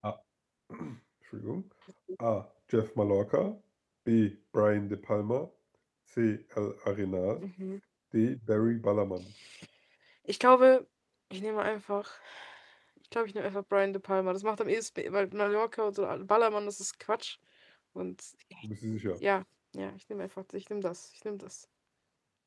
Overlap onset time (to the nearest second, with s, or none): none